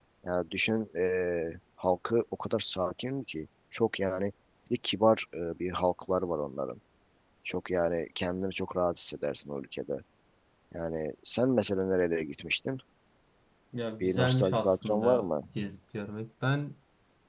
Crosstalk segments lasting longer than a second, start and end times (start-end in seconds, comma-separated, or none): 14.0-15.2